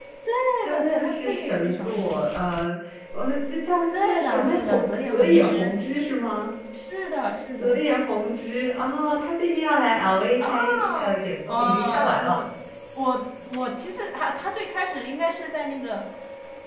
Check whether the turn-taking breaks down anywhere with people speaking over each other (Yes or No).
Yes